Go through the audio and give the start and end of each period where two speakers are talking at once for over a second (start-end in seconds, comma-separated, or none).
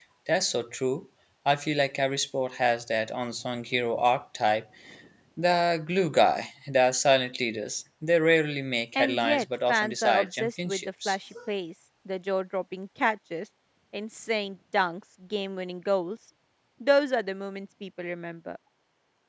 8.9-11.2